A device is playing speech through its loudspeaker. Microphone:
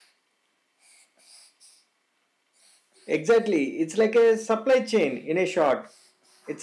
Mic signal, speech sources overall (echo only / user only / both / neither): user only